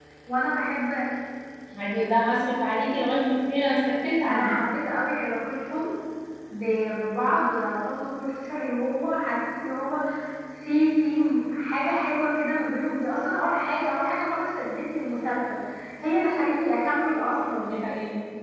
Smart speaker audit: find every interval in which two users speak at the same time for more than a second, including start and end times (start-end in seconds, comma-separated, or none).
none